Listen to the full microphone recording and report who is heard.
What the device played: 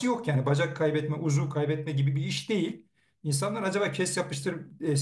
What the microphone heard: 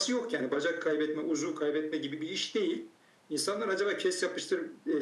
echo only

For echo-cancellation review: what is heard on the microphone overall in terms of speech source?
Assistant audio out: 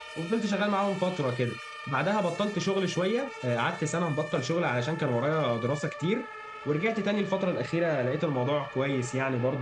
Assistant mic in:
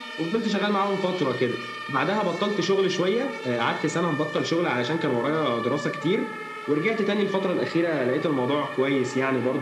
echo only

